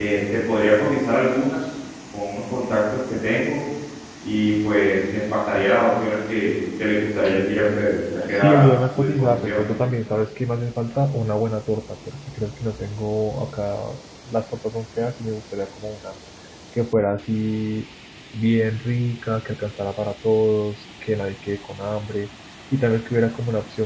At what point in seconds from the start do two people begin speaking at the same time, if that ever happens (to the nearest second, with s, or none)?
8 s